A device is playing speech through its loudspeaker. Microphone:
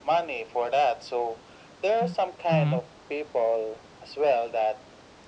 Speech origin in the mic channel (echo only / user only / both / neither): both